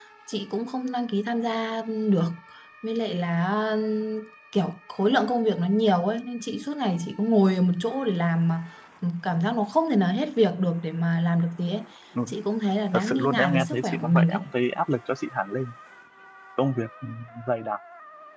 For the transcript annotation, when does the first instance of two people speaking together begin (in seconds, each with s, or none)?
12.9 s